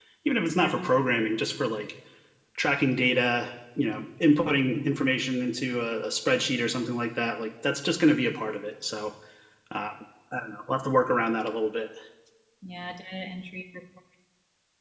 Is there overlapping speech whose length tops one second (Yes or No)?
No